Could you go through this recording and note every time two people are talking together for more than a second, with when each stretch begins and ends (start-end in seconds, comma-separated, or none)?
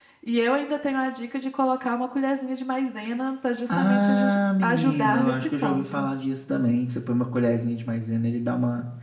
3.8-6.1